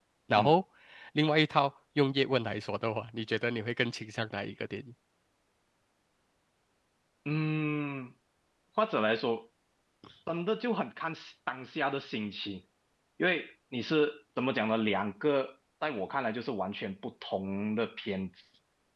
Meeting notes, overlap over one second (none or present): none